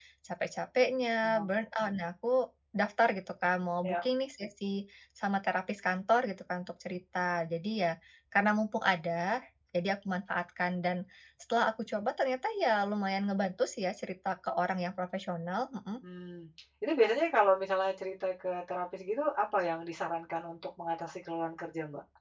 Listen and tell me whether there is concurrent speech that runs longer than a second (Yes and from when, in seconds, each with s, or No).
No